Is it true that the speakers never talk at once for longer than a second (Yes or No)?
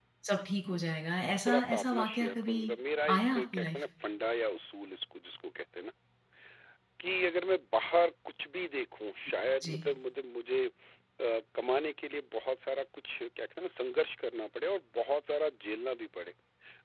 No